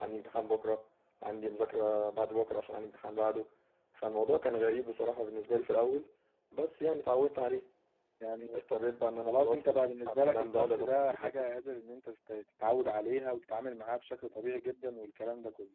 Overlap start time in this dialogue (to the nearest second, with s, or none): 9 s